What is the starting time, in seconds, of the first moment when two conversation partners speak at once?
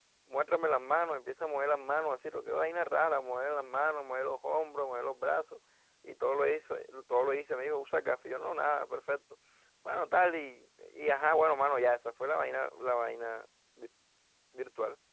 none

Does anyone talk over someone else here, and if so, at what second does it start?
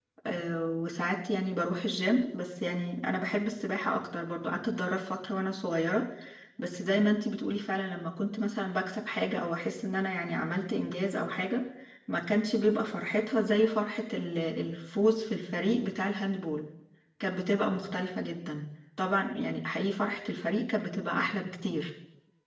none

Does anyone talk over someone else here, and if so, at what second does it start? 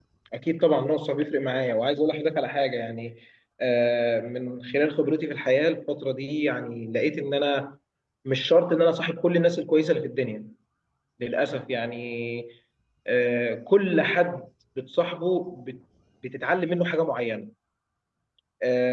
none

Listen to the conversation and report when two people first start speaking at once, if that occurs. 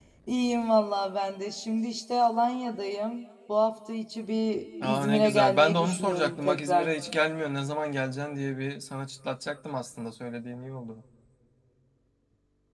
4.8 s

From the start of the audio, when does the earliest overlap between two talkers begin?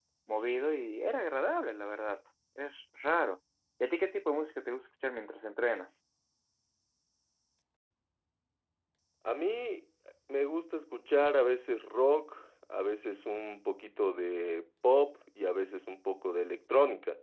none

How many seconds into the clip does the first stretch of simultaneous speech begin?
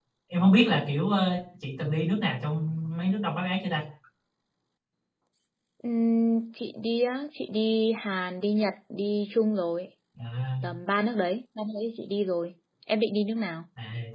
none

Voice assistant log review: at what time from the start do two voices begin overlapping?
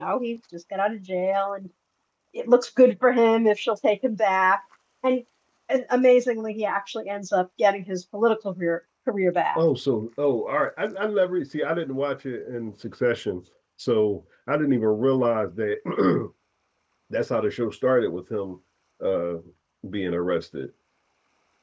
none

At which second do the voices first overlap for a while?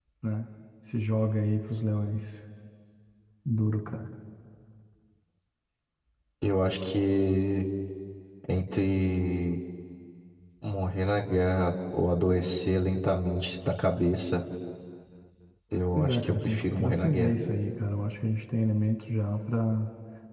15.9 s

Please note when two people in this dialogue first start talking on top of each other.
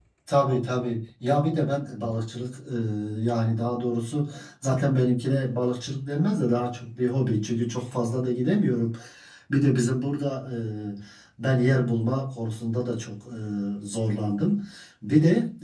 none

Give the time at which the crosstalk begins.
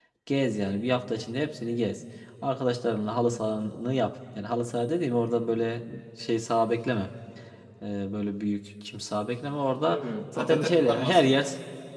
9.9 s

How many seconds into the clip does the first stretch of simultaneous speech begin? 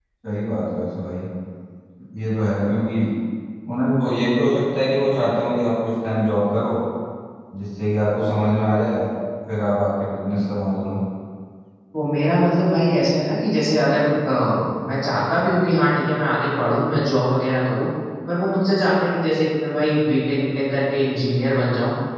none

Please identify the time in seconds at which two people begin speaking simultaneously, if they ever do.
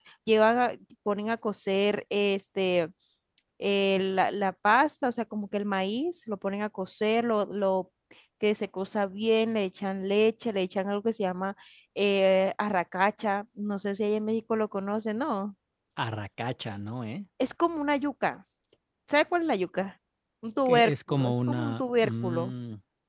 20.7 s

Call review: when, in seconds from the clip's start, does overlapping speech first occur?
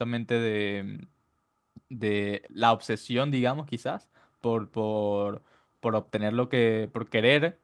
none

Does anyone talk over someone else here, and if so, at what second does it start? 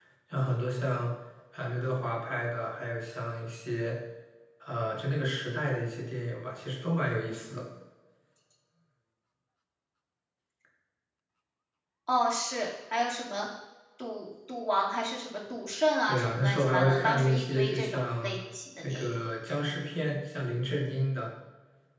16.1 s

